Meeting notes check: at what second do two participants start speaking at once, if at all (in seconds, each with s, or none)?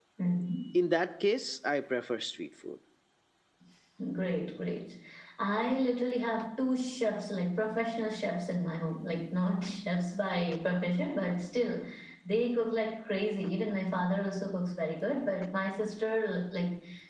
none